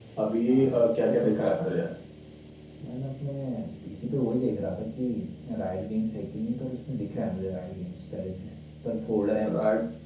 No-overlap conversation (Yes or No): No